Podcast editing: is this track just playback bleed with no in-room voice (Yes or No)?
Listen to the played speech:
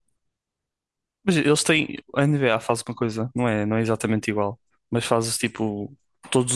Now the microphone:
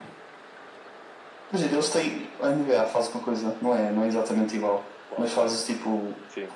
No